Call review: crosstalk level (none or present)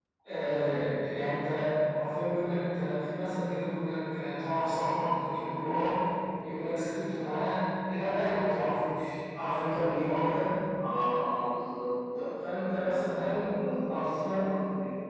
present